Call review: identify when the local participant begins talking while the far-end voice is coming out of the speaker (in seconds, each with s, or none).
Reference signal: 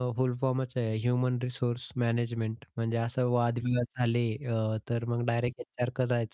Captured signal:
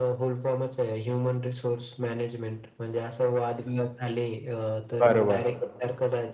5.0 s